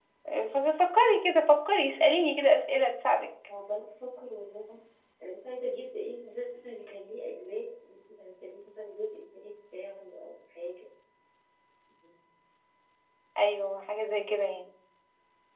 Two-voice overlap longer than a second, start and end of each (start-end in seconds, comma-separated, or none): none